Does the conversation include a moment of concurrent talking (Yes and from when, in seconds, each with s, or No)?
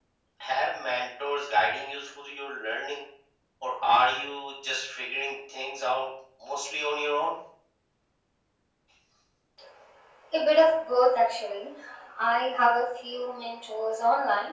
No